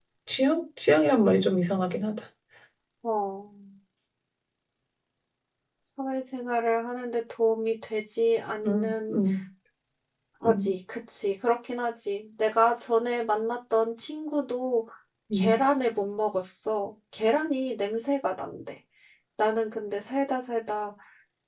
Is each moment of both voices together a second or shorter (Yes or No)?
Yes